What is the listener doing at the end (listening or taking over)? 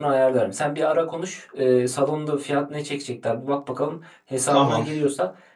listening